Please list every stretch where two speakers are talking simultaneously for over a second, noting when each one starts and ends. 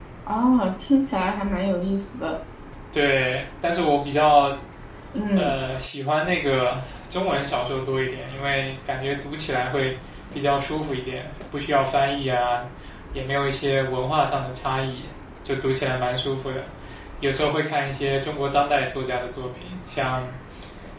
none

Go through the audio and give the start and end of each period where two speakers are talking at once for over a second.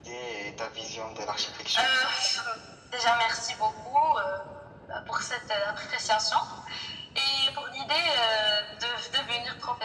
none

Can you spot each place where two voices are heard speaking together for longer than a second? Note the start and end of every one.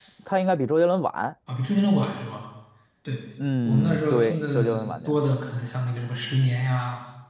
3.6-5.1

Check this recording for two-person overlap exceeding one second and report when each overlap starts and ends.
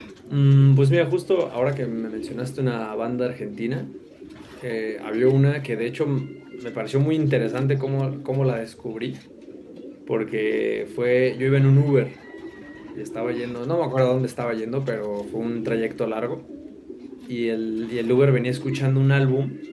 none

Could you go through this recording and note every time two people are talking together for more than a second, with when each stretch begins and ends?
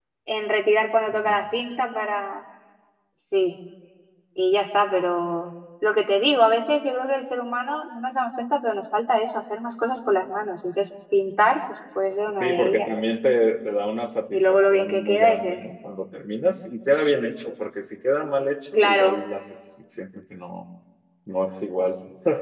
14.3-15.6

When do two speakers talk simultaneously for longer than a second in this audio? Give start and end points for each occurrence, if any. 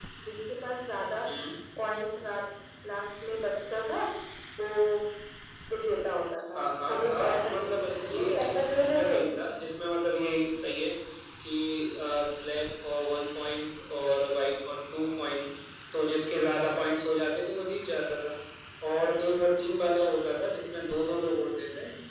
6.6-9.2

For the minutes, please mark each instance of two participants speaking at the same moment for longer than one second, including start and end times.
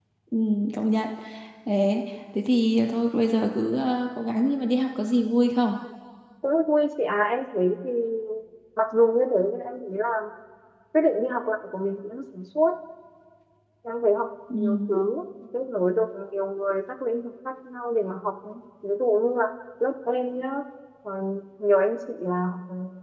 none

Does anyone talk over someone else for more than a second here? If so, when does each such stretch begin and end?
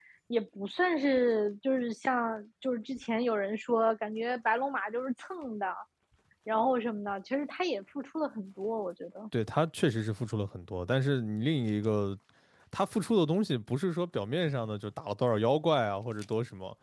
none

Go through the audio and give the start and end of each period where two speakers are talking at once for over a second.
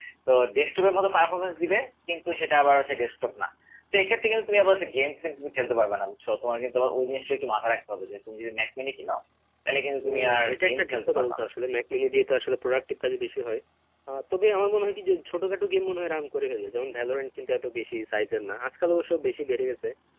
10.0-11.5

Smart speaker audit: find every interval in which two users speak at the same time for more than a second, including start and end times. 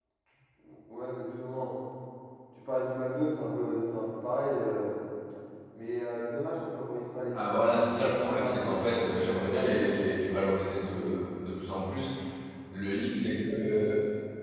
7.4-9.9

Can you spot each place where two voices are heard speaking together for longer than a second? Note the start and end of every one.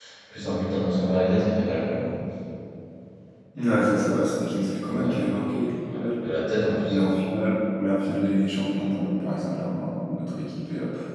none

